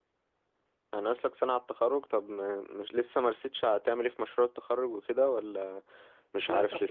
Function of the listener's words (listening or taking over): taking over